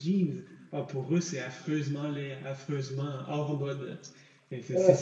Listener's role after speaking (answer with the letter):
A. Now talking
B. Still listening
B